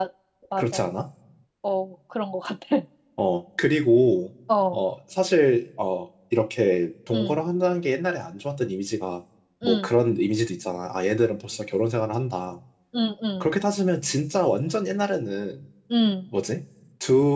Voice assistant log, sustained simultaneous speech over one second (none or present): none